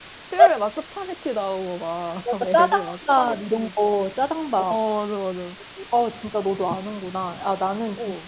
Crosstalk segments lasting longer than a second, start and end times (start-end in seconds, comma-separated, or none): 2.4-3.7